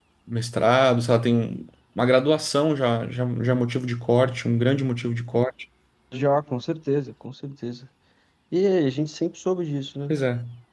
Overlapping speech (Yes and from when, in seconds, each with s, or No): No